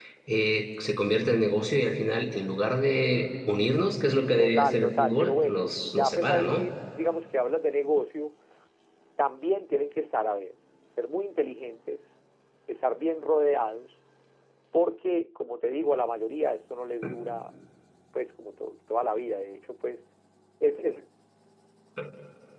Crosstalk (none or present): present